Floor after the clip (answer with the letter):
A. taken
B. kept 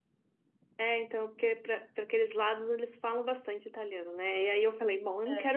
B